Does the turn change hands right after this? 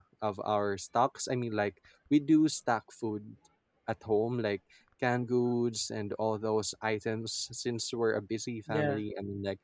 No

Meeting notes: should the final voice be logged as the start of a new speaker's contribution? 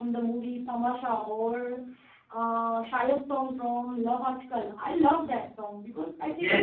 Yes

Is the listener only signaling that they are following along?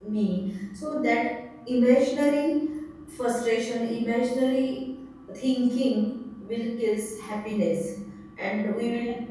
Yes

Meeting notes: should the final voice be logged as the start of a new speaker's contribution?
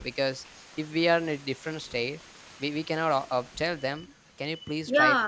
Yes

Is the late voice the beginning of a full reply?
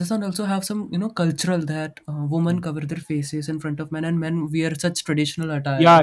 Yes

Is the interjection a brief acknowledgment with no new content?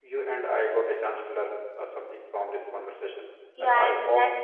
No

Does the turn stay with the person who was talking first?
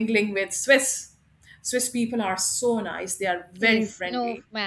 No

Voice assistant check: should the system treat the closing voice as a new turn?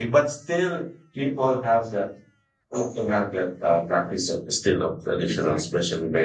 No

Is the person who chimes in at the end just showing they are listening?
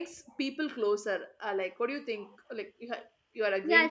No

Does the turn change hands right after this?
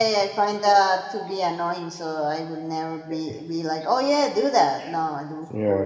Yes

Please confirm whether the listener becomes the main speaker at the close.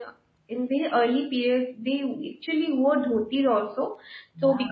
No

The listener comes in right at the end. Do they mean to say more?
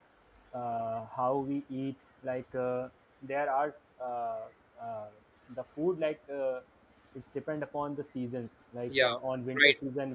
No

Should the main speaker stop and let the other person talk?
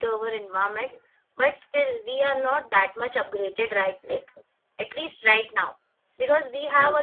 No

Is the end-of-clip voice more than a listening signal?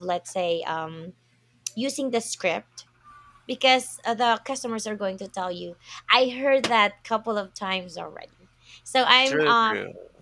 No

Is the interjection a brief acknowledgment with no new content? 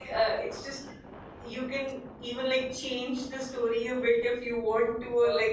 Yes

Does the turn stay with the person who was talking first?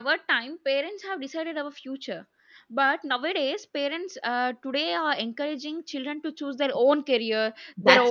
Yes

